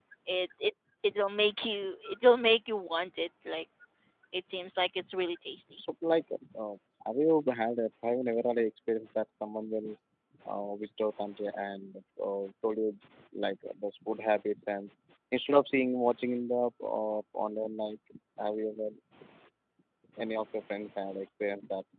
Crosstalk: none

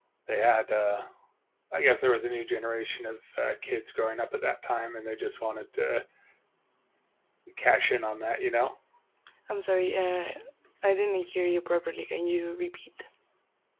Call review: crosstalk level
none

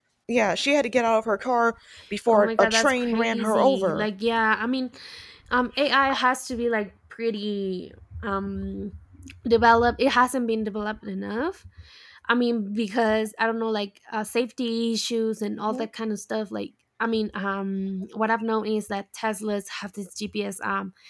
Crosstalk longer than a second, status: present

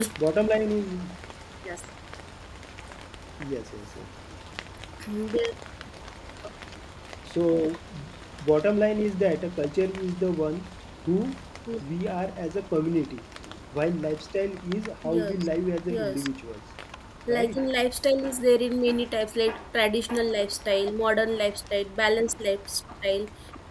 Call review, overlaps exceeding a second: none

